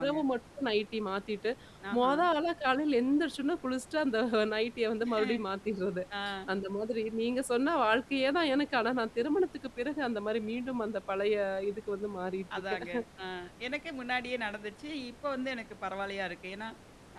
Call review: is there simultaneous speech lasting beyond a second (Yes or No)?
No